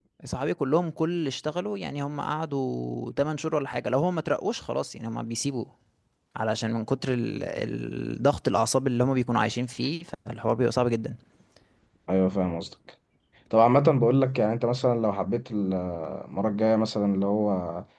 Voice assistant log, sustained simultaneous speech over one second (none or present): none